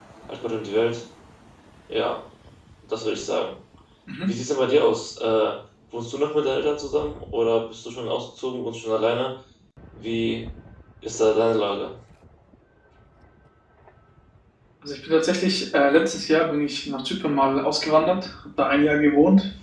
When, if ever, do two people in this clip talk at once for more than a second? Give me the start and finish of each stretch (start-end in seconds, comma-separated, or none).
none